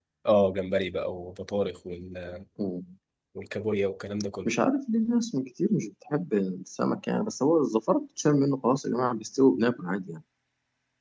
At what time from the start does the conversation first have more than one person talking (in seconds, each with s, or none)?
none